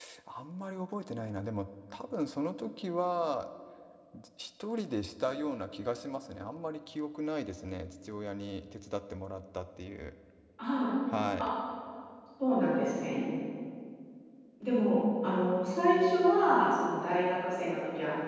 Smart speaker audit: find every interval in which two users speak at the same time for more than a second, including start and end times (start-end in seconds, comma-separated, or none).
none